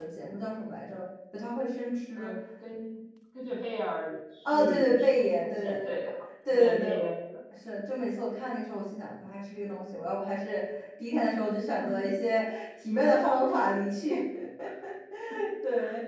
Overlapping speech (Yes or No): Yes